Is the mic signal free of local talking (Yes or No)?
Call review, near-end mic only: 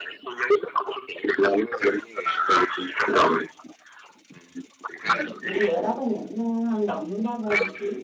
No